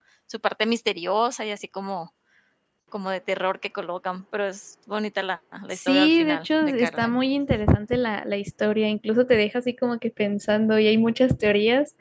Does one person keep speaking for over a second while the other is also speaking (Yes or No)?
Yes